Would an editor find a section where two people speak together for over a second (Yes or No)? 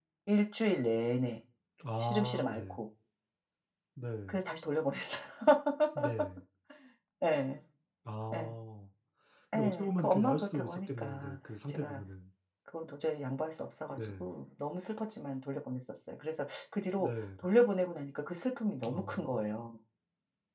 Yes